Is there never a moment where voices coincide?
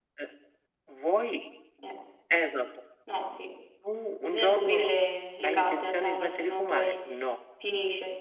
No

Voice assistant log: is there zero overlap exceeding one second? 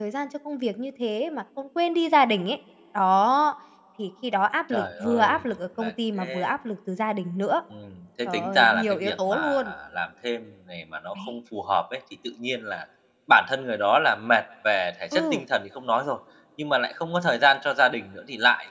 No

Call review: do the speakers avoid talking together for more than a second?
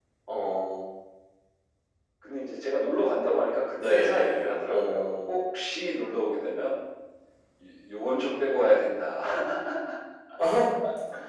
No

